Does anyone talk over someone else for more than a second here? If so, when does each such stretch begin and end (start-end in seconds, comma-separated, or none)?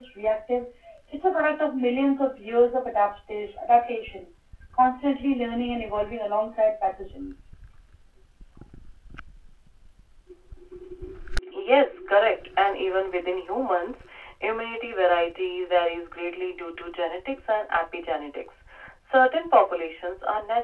none